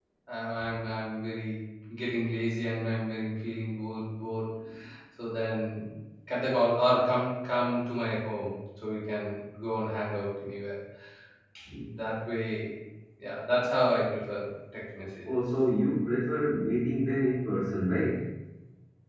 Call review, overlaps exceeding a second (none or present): none